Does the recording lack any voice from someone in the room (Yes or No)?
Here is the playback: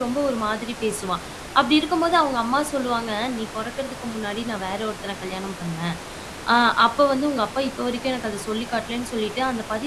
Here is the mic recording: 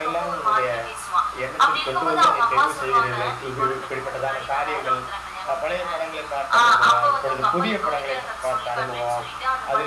No